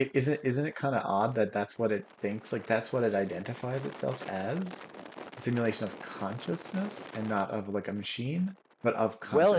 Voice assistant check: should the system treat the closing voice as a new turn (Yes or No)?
Yes